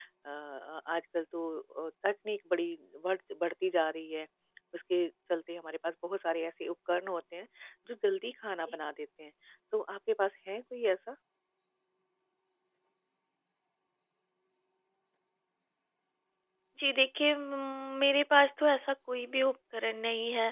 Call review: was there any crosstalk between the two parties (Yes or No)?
No